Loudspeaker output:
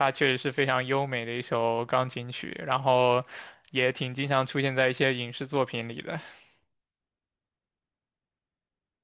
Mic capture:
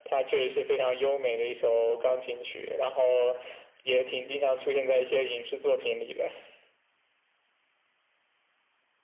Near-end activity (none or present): none